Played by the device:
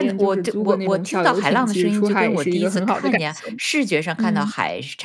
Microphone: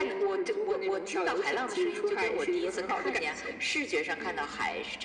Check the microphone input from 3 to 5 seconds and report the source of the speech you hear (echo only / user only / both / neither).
echo only